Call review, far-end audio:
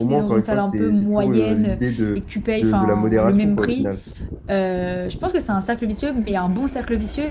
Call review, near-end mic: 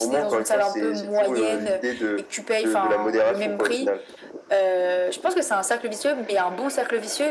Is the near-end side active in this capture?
No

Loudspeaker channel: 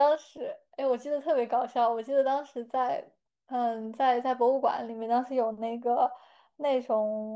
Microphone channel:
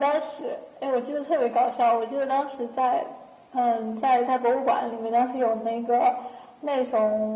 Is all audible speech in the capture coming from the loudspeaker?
Yes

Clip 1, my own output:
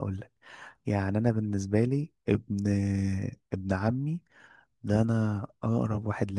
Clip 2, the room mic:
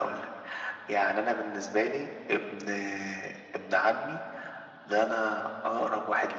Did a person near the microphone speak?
No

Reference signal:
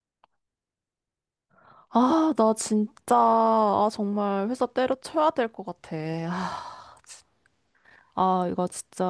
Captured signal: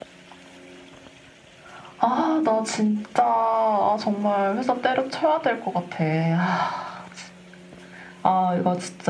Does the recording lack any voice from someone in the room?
Yes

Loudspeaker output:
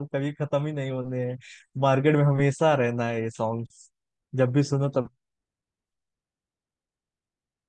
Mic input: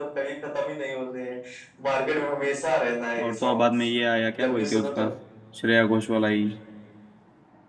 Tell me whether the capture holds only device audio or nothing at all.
No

